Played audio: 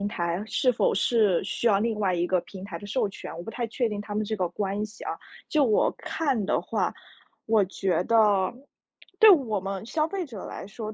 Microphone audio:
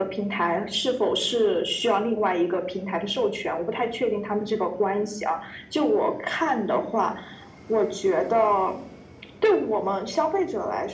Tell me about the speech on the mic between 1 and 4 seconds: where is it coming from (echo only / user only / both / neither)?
echo only